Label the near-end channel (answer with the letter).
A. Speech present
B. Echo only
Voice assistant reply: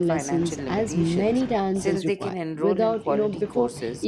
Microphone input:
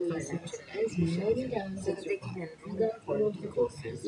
B